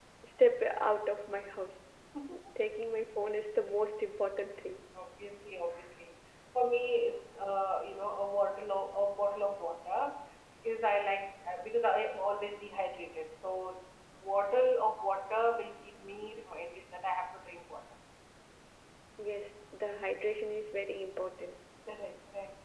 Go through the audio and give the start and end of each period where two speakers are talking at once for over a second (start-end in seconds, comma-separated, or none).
none